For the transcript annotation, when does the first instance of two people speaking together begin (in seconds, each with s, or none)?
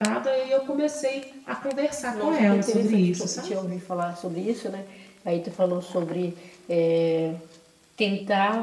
2.1 s